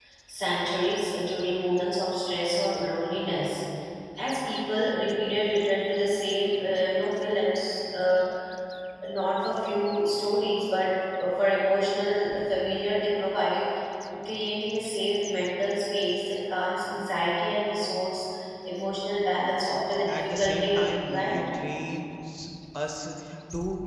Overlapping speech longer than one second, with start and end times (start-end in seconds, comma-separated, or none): 20.1-21.4